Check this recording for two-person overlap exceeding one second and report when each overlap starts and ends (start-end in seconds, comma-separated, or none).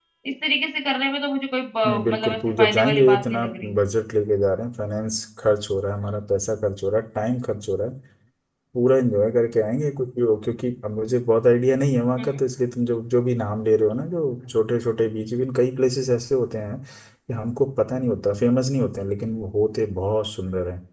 1.9-3.7